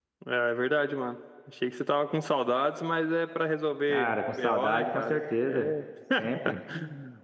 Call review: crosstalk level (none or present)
present